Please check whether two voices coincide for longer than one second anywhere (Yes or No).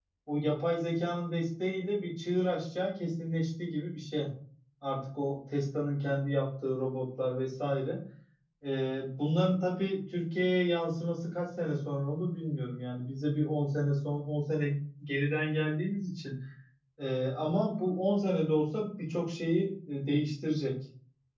No